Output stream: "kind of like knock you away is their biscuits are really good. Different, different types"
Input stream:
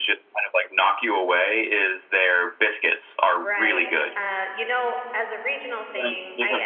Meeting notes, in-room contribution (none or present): present